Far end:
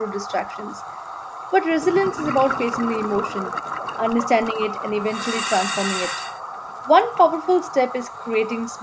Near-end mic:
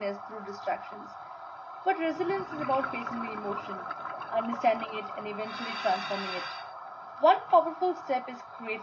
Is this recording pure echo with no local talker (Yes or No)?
Yes